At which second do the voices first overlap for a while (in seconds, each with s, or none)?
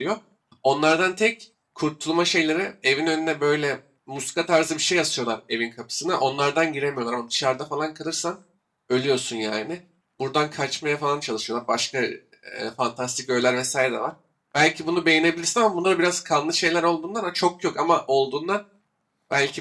none